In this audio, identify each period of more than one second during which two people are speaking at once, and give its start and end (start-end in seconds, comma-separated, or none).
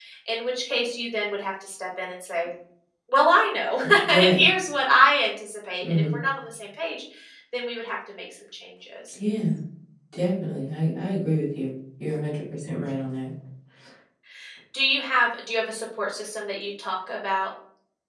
none